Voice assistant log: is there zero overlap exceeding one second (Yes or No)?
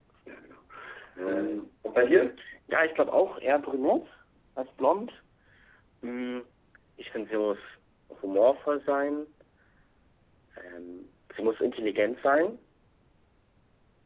Yes